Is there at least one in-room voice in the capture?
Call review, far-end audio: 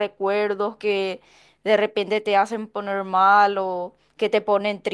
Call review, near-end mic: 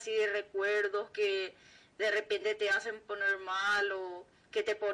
No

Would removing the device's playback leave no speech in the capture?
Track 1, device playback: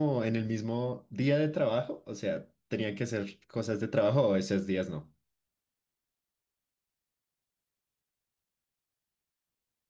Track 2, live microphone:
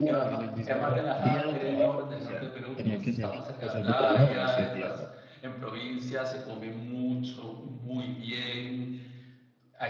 No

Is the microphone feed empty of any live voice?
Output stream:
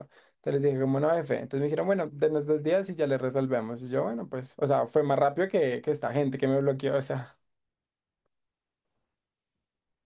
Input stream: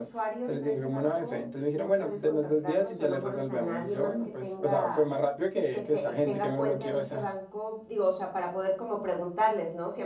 No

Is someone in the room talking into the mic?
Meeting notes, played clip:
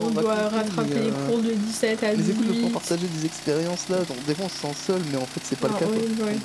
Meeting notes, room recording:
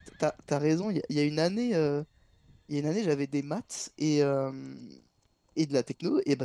Yes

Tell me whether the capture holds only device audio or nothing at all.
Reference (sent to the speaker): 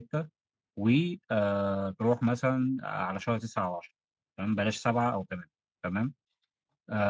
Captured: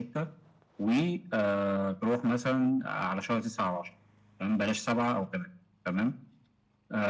Yes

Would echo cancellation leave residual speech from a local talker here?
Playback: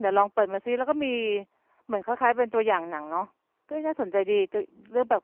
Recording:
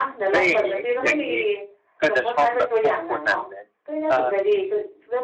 Yes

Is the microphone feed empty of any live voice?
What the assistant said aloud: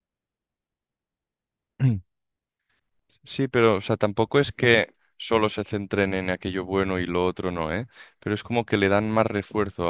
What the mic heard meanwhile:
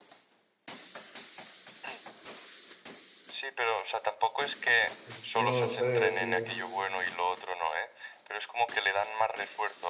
No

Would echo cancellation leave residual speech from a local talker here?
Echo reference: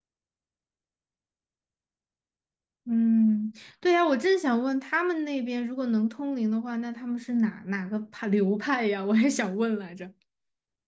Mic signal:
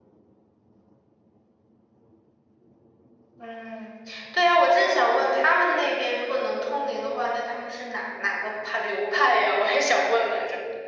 No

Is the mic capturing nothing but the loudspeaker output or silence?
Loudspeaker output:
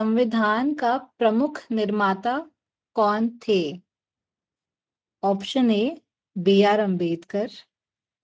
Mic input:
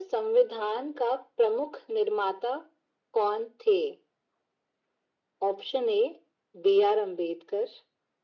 Yes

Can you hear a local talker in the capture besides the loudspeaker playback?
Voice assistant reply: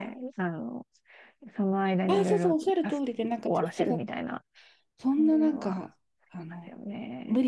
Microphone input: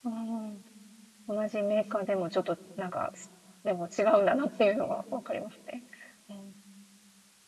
Yes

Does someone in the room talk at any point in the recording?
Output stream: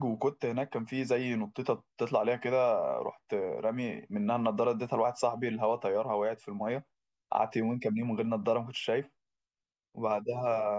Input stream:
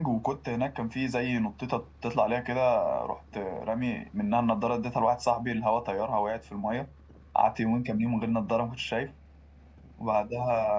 No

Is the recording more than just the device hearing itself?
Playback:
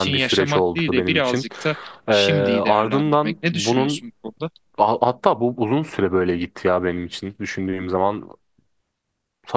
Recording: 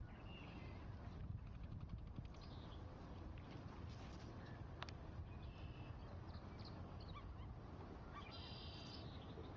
No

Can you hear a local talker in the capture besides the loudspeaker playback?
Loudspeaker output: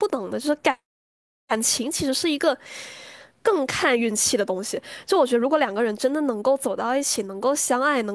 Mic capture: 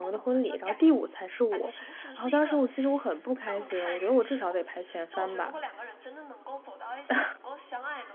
Yes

